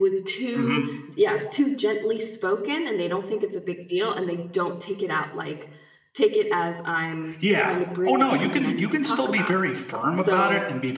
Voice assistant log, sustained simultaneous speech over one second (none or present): present